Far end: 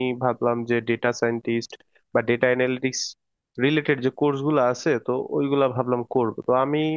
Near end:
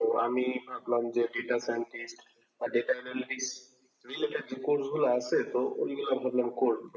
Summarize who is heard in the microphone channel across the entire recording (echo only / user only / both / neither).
echo only